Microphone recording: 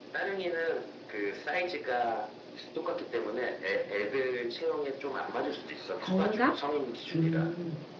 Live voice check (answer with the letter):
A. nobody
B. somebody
B